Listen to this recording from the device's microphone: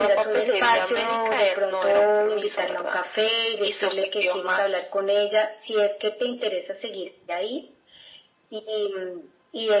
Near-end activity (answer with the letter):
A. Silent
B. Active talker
A